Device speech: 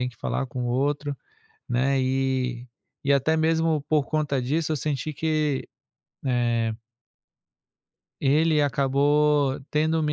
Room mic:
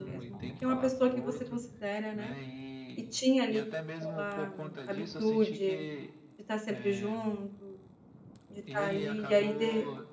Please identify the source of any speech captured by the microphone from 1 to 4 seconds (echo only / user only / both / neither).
both